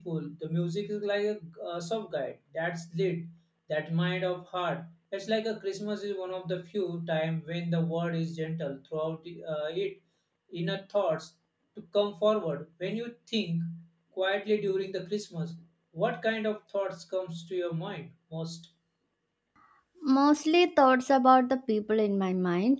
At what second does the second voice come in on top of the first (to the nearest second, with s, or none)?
none